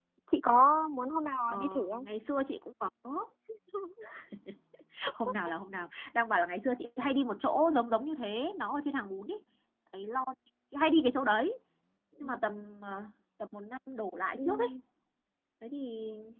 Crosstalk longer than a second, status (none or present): none